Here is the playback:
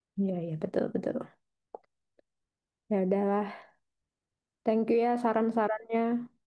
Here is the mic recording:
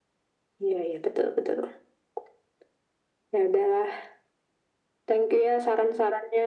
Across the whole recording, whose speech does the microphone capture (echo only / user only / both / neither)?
echo only